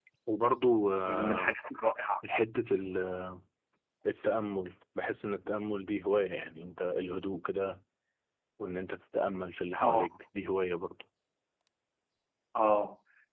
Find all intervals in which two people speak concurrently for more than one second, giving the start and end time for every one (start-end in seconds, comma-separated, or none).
none